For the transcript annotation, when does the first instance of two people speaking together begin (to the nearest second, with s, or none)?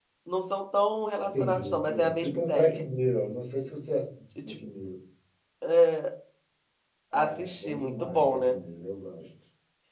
1 s